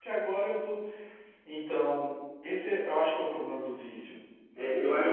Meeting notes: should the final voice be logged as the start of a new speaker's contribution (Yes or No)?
Yes